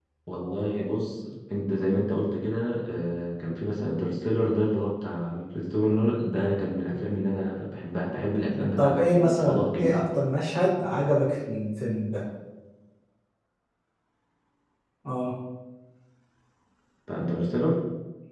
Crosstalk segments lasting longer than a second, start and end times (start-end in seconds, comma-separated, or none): 8.8-10.0